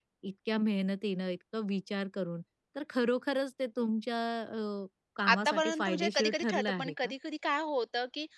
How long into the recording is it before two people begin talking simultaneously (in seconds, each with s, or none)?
5.2 s